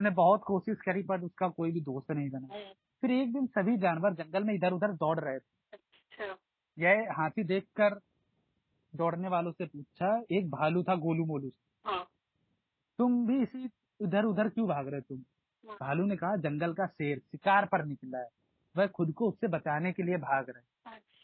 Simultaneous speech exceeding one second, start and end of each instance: none

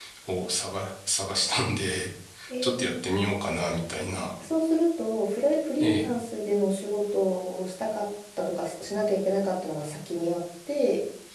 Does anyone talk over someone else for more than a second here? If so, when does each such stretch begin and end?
none

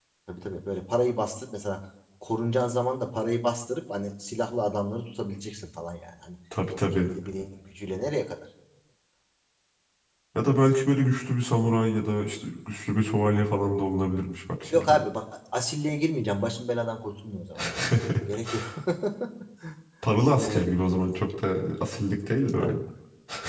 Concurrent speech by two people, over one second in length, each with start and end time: none

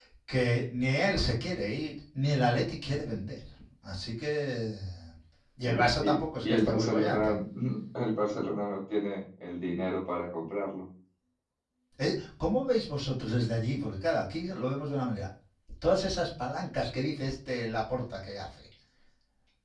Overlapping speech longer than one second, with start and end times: 5.6-7.3

